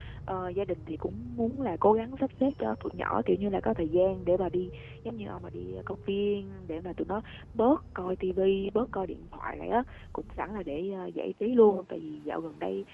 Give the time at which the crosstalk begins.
none

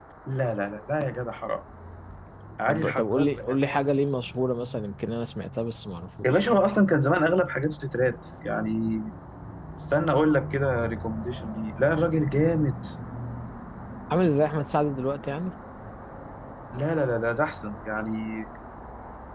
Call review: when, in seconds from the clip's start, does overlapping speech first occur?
2.7 s

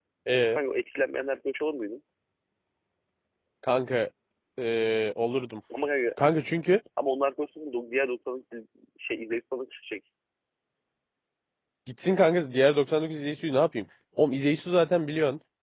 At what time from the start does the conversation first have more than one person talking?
none

